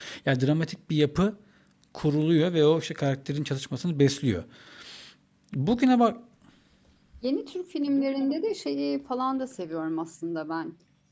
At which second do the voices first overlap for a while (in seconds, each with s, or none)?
none